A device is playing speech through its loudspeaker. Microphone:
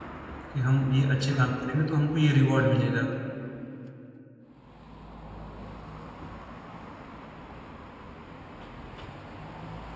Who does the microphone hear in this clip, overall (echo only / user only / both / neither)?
user only